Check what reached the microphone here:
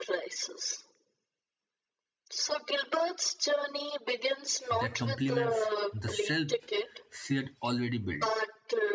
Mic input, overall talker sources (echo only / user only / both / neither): both